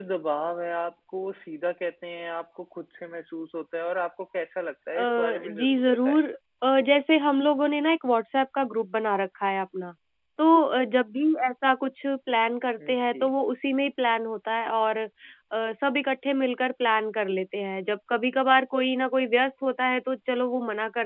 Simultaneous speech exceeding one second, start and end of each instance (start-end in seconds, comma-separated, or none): 5.0-6.2